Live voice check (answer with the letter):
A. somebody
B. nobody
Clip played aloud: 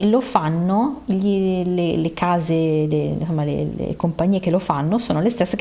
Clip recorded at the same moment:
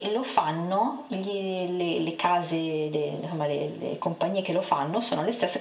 B